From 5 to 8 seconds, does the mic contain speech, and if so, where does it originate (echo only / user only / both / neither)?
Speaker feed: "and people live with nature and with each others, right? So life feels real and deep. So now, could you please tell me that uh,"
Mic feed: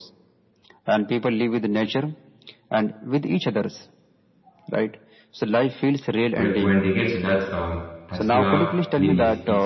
both